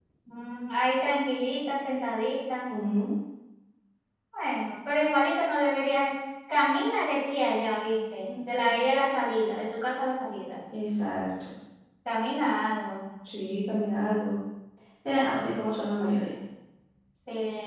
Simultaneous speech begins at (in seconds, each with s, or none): none